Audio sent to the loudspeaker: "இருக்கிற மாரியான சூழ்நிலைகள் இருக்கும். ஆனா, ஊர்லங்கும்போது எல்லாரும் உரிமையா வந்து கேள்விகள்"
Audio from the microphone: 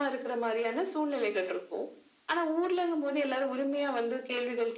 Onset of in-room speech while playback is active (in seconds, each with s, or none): none